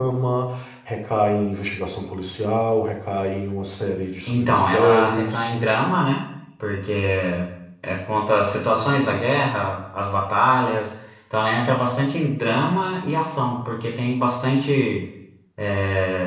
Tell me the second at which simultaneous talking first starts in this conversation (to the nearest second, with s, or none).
4 s